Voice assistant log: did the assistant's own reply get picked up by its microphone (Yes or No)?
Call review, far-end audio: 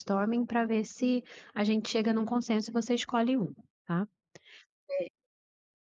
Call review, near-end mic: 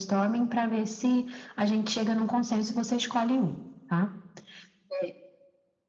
Yes